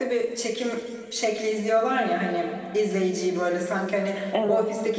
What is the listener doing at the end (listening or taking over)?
listening